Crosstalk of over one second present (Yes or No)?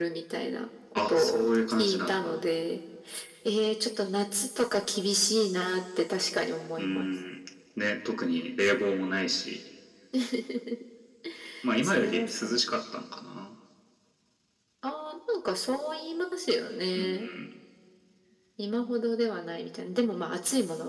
Yes